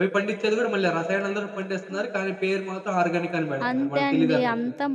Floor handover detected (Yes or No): Yes